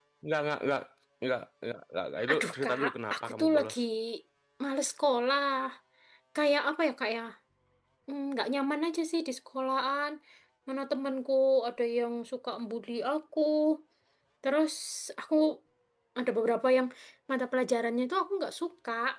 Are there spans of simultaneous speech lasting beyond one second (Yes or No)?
Yes